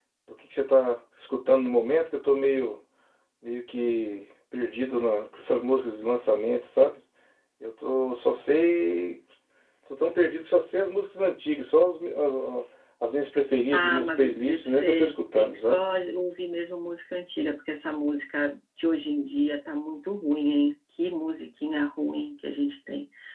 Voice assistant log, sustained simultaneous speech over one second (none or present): present